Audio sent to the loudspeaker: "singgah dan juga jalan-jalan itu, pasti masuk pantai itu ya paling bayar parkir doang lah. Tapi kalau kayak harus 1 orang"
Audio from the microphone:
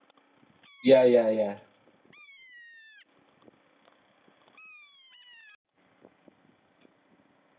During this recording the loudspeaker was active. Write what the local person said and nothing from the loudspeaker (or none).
Ya ya ya.